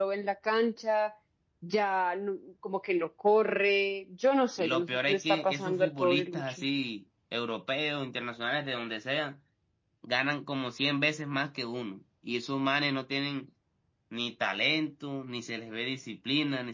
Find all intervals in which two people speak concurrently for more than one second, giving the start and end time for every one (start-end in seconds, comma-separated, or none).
4.6-6.6